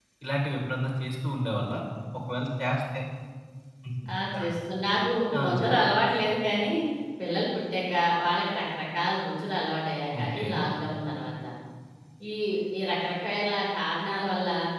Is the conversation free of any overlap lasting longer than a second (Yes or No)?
Yes